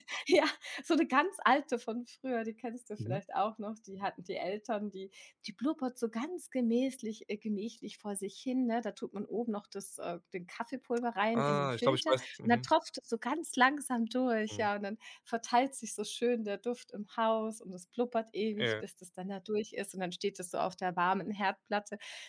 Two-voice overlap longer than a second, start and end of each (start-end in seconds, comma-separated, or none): 11.3-12.7